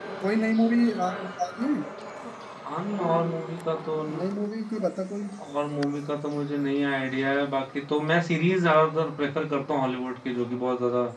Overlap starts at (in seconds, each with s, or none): none